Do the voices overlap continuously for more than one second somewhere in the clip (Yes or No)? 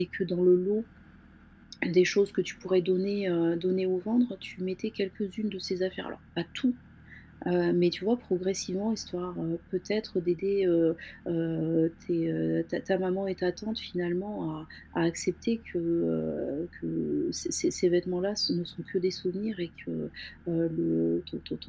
No